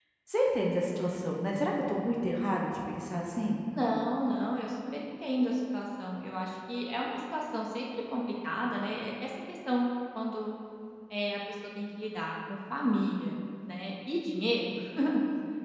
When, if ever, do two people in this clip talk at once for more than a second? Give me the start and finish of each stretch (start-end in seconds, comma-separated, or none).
none